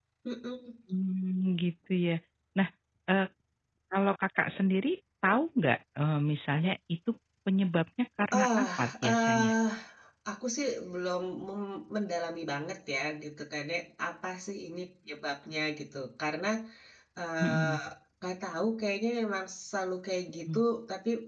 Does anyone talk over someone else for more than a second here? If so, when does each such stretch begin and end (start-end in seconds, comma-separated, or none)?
8.3-9.5